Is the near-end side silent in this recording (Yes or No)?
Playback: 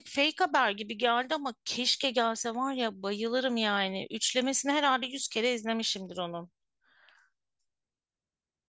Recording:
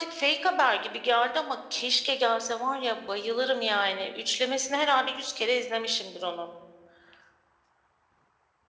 Yes